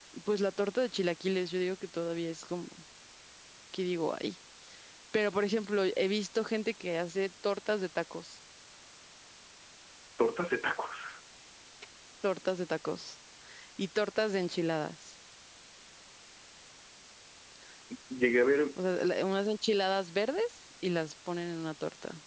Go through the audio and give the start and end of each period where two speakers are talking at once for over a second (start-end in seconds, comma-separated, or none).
none